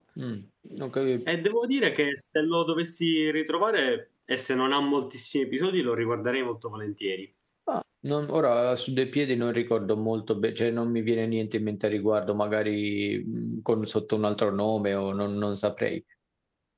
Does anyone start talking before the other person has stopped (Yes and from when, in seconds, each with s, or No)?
No